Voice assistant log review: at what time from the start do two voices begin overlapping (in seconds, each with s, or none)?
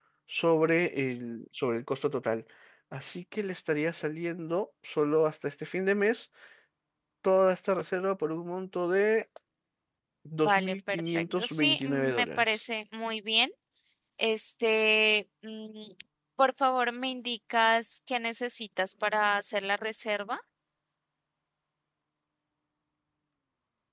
10.4 s